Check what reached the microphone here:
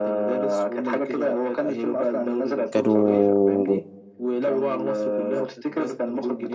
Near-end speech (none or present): present